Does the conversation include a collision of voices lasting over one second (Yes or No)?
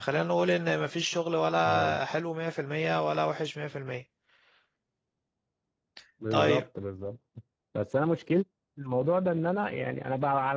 No